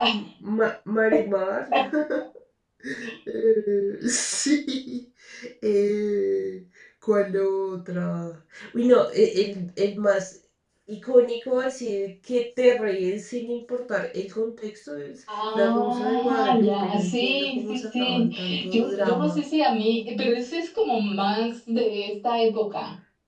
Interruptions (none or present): present